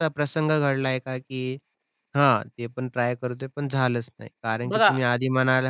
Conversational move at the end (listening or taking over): listening